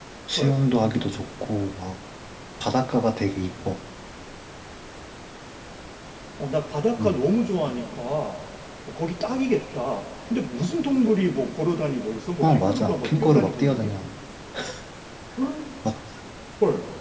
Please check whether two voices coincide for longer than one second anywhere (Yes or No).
Yes